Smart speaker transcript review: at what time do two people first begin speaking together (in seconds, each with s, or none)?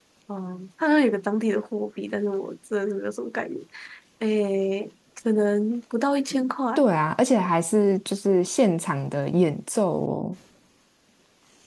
none